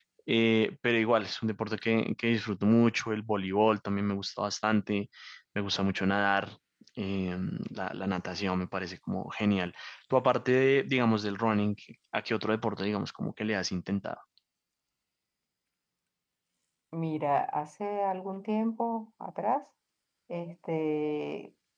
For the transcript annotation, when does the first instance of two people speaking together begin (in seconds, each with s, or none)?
none